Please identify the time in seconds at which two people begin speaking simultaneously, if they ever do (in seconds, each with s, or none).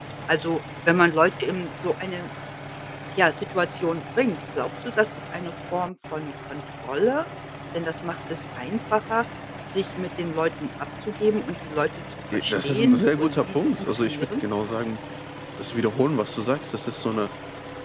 12.3 s